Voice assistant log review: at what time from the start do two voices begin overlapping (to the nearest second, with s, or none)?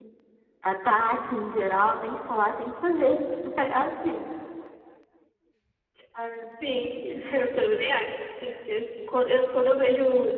none